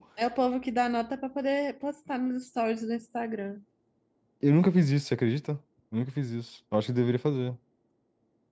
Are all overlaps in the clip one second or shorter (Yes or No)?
Yes